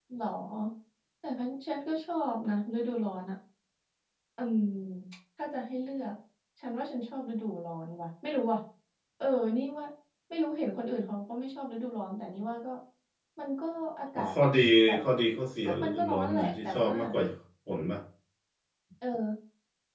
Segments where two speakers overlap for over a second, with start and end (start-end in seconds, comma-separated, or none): 15.7-16.9